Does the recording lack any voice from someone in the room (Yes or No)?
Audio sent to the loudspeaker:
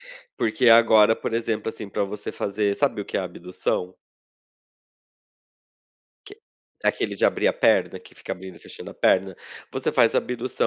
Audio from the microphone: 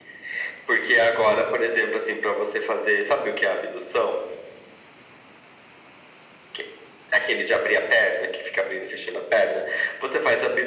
Yes